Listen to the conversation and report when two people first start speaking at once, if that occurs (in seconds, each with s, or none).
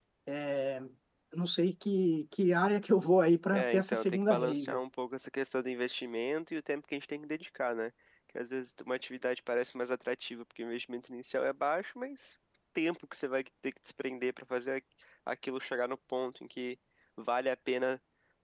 3.5 s